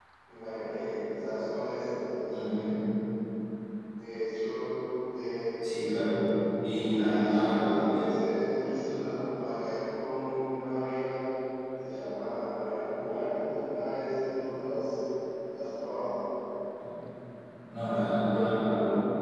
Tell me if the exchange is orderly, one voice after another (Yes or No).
No